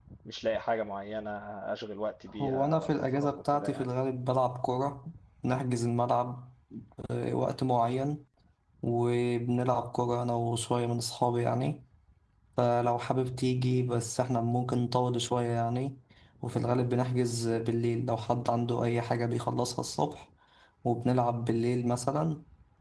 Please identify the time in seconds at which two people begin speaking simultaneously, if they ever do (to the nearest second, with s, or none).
2 s